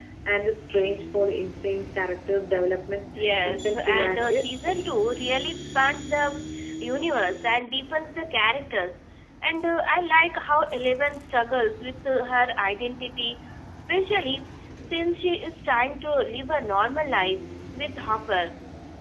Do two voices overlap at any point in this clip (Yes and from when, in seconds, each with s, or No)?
Yes, from 3.1 s